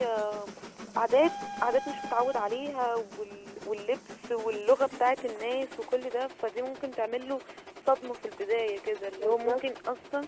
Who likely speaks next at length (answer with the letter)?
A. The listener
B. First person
B